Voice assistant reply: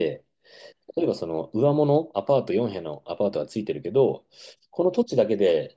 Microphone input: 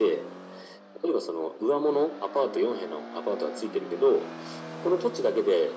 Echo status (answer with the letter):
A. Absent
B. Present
B